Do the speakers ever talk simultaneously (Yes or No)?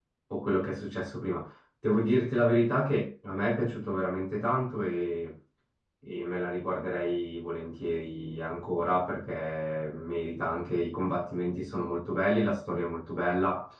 No